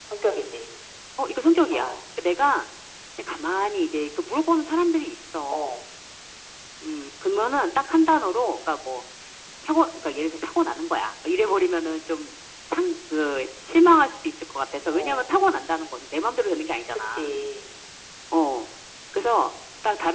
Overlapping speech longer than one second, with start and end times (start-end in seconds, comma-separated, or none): none